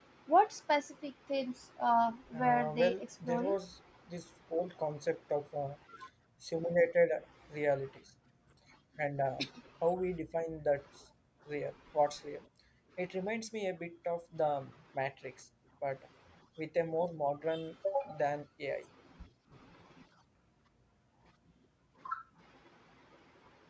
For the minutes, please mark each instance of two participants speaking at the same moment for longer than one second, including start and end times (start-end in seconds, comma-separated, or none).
2.3-3.6